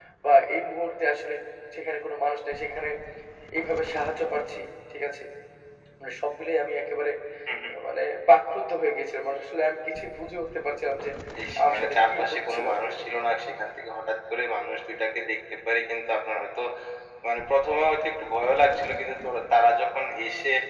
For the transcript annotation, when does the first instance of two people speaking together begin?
12 s

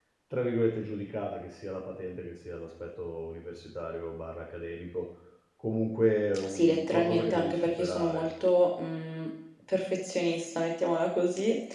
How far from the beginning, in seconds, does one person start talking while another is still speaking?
6 s

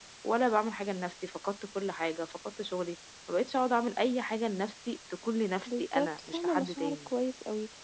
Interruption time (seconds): 6 s

